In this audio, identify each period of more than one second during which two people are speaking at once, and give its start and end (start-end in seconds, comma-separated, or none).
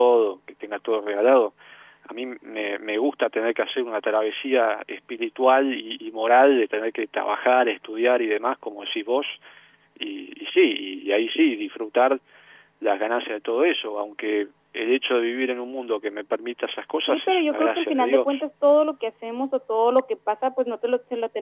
17.1-18.4